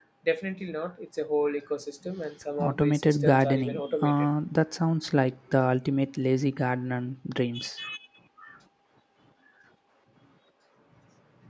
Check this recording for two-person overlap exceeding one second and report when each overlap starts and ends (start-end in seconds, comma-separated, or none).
2.6-4.1